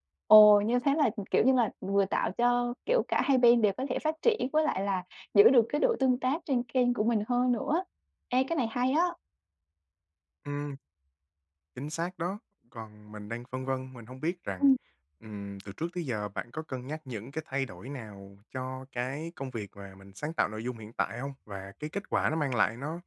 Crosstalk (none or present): none